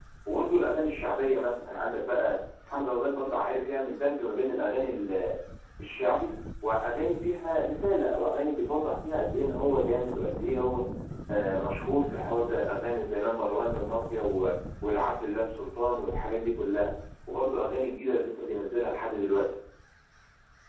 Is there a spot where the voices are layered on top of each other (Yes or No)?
No